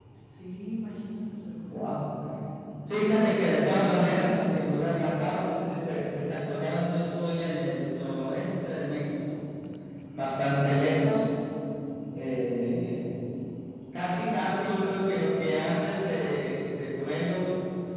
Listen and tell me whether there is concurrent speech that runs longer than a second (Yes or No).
Yes